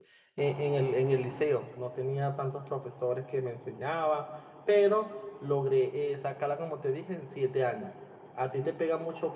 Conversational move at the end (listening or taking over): listening